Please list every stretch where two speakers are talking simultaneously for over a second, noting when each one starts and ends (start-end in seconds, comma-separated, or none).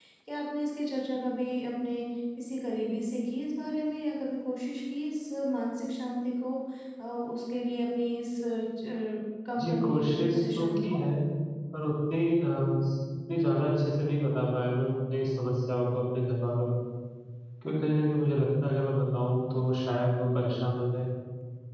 9.6-11.0